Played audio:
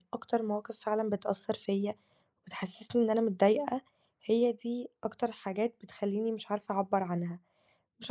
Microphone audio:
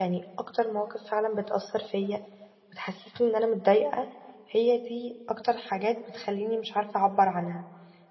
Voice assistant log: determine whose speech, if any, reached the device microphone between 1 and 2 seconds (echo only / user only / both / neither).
echo only